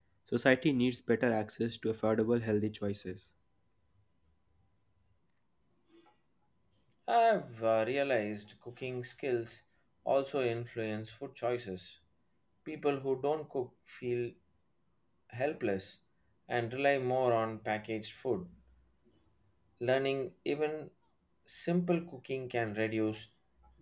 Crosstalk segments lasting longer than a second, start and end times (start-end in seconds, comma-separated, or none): none